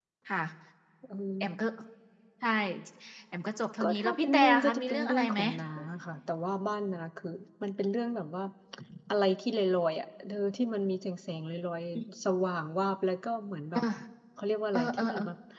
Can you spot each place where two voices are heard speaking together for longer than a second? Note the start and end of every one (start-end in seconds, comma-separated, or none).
3.8-5.4